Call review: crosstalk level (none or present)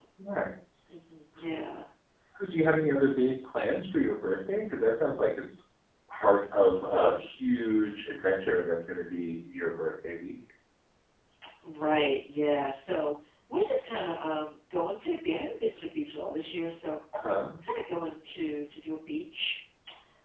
none